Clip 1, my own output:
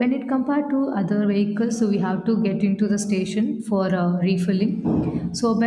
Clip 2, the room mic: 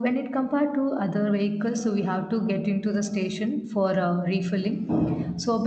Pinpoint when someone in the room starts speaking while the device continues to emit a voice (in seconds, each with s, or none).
none